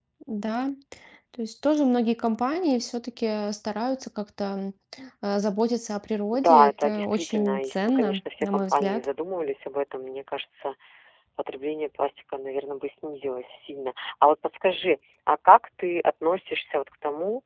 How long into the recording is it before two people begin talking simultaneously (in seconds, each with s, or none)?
6.3 s